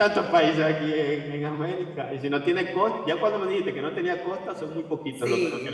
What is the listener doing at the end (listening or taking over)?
taking over